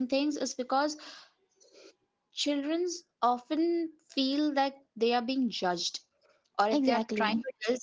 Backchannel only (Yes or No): Yes